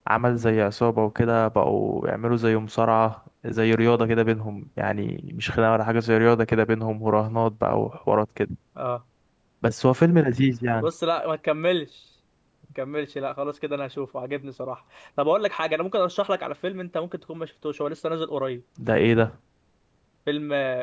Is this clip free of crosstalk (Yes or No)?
Yes